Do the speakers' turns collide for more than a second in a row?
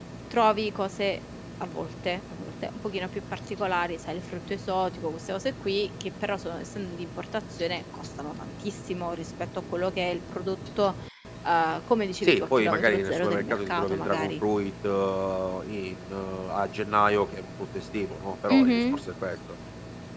Yes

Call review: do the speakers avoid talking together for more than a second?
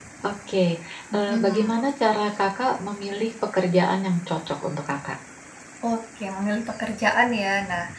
Yes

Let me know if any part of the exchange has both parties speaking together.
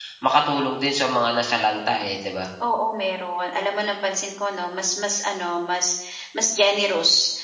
No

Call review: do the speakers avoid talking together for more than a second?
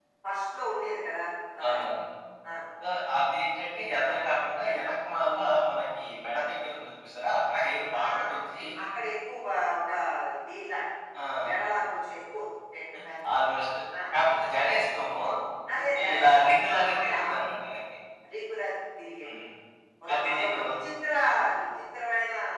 No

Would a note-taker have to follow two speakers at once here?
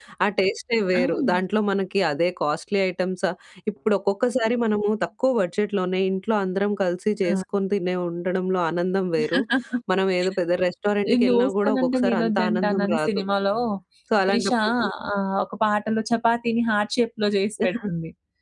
Yes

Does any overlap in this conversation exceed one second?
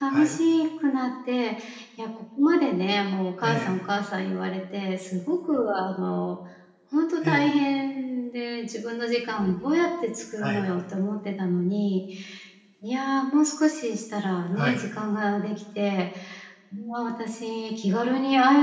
No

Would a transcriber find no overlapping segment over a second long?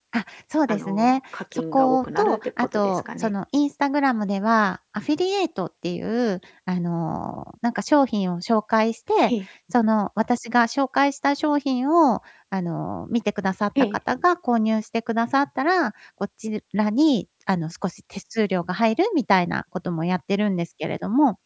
No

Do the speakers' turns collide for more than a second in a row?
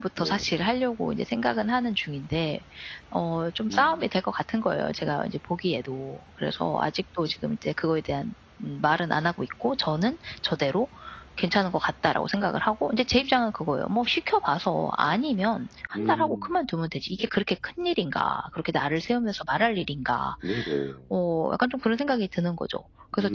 No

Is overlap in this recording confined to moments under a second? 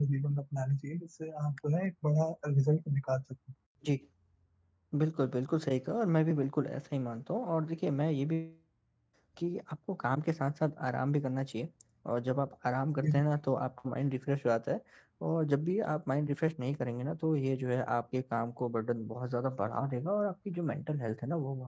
Yes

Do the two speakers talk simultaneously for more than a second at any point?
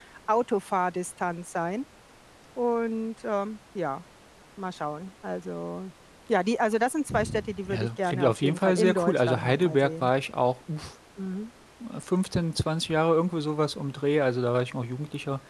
Yes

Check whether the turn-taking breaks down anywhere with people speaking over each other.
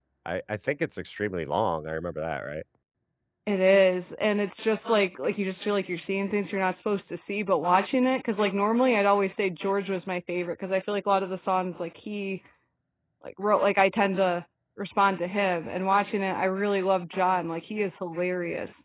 No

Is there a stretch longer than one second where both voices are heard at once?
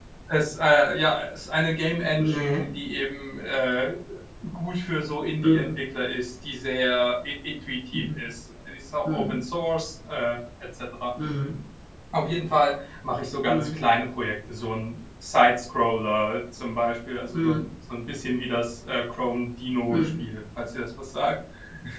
No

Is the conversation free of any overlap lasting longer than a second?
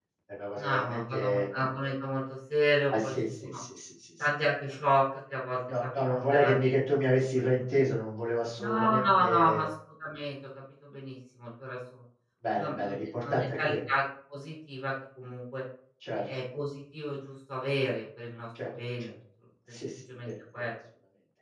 No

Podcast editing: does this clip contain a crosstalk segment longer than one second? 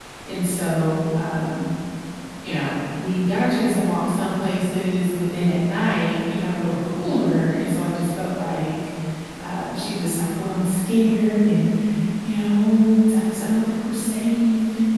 No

